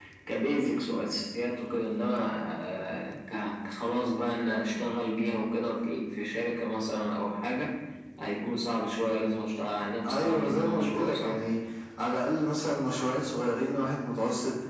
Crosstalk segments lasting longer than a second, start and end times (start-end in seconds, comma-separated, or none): 10.1-11.3